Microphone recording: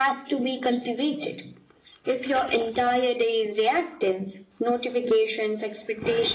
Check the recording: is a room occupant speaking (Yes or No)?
No